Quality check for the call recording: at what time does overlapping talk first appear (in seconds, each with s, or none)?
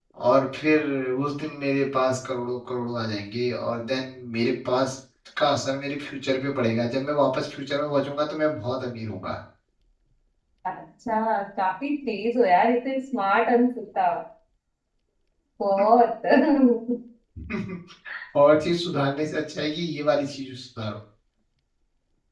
none